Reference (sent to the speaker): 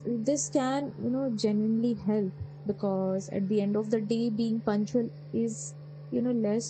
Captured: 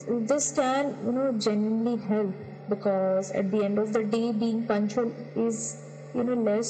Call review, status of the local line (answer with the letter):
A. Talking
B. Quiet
B